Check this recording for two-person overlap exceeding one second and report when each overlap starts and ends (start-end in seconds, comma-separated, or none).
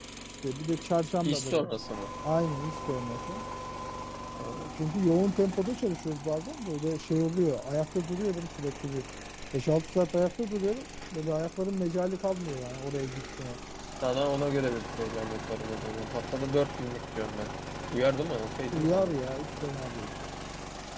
none